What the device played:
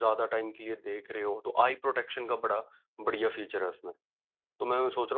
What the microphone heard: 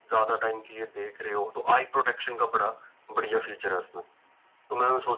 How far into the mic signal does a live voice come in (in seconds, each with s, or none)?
none